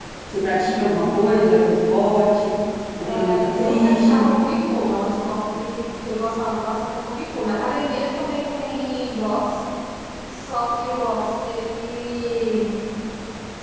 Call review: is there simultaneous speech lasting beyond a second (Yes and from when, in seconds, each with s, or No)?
Yes, from 3.0 s